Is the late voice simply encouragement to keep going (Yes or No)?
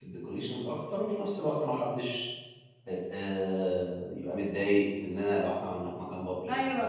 No